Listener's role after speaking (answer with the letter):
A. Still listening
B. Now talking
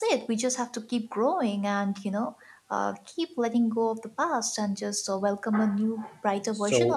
B